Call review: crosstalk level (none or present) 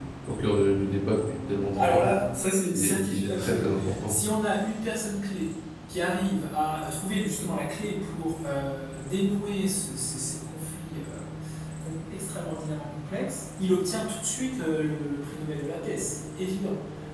present